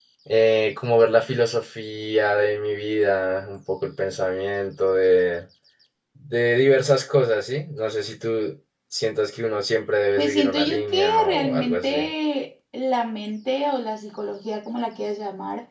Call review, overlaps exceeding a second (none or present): present